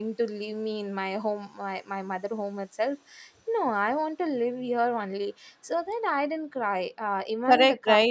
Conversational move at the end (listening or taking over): taking over